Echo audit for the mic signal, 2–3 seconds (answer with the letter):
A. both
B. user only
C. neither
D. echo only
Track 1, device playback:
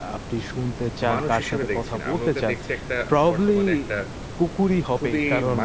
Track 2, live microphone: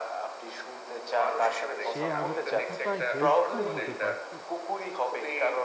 A